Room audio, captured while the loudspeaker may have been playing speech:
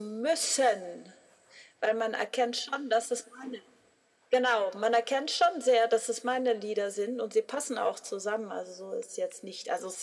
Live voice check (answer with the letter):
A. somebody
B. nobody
B